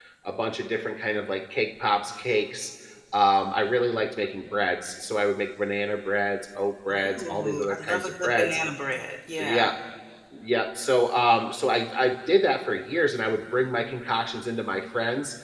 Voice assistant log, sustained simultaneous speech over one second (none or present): present